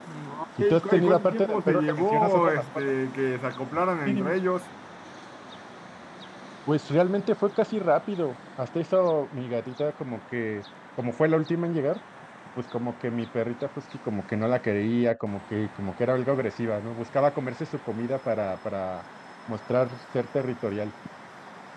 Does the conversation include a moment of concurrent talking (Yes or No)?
Yes